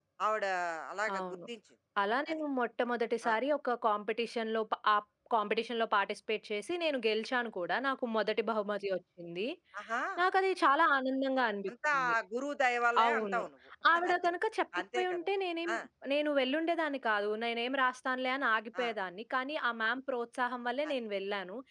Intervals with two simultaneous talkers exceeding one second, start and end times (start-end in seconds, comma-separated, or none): none